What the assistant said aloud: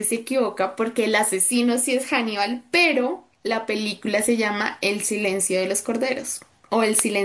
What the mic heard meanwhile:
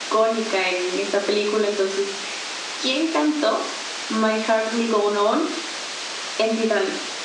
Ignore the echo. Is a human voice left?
Yes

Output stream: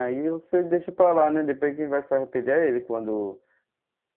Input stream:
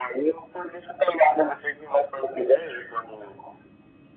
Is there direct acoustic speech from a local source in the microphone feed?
No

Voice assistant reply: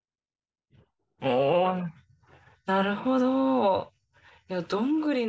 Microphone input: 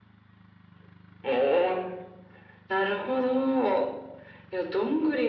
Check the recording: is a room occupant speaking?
No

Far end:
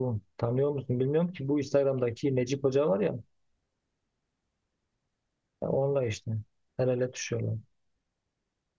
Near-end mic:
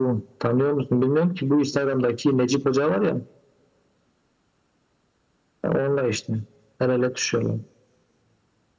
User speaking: No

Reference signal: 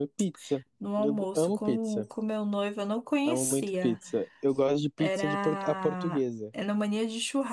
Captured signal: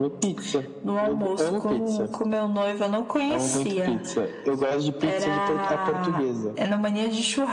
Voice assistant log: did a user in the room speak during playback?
No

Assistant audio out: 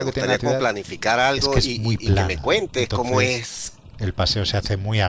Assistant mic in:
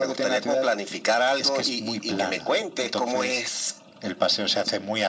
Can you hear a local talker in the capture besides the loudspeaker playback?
No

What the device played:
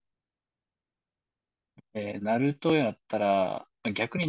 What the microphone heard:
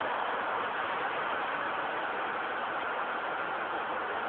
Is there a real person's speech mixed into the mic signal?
No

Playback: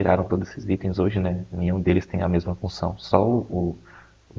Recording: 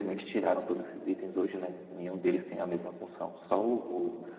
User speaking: No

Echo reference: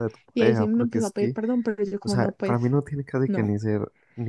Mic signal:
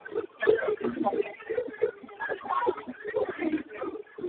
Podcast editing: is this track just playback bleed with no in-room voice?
Yes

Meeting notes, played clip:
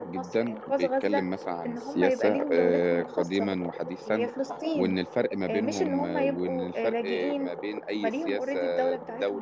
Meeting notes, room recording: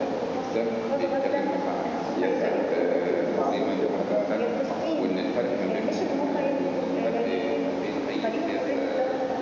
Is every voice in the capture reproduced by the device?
No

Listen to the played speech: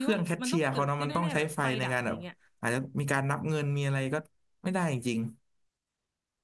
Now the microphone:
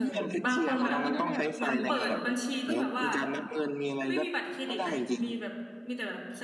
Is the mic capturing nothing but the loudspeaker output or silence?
No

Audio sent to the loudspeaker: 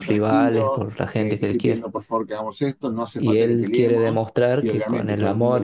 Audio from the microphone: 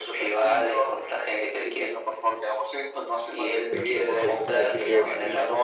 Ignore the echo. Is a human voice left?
Yes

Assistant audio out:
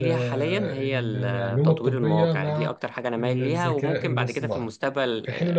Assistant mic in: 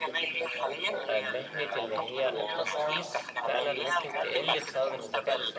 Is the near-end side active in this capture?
Yes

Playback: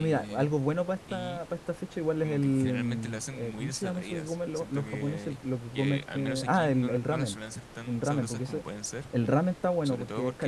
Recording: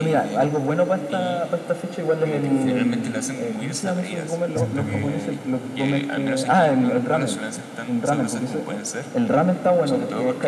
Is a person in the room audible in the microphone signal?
Yes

